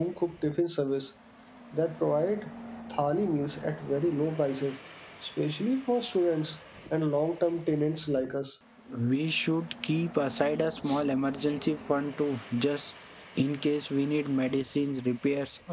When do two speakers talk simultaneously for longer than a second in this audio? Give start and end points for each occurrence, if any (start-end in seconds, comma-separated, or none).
none